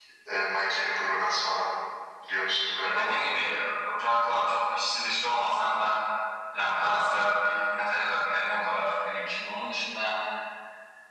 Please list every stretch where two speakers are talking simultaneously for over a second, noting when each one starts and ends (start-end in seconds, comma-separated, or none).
none